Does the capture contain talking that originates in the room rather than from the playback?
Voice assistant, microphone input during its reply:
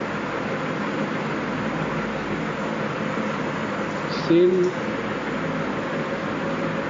Yes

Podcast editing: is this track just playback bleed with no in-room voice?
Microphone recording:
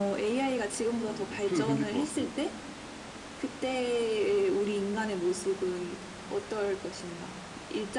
No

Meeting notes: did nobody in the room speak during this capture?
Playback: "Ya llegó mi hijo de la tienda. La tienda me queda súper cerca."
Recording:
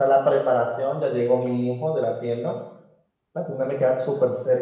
Yes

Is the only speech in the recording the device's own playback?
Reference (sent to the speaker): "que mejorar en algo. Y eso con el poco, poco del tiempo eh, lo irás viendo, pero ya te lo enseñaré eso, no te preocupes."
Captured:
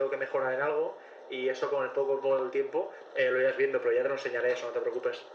Yes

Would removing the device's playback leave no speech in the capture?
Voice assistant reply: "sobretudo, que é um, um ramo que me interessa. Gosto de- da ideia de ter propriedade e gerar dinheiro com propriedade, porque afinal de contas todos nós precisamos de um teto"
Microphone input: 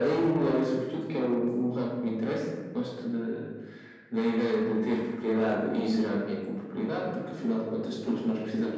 Yes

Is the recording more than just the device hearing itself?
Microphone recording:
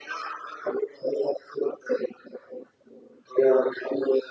No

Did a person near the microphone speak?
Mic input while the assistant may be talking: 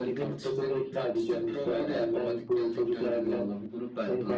No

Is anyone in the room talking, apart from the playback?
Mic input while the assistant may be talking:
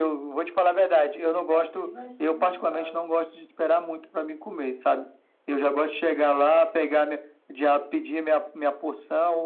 Yes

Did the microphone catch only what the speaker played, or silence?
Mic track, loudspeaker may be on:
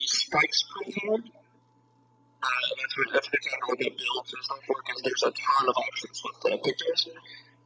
Yes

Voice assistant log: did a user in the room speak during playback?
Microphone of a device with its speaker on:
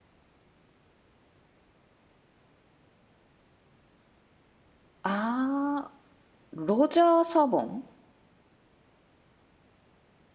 Yes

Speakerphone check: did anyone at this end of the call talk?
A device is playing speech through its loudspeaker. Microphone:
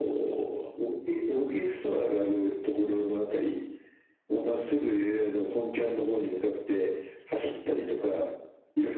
No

